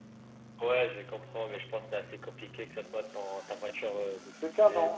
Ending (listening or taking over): taking over